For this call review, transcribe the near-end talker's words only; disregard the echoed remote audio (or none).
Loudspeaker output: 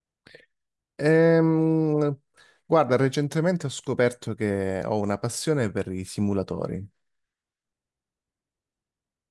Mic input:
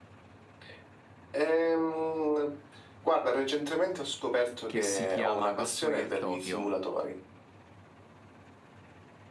che si chiama Ghostwire Tokyo.